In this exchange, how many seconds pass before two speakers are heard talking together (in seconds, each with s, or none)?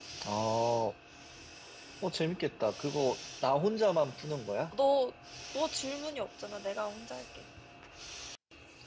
none